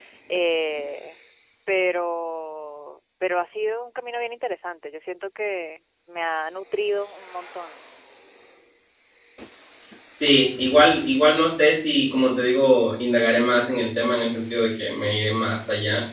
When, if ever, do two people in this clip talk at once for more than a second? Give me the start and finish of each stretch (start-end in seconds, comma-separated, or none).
none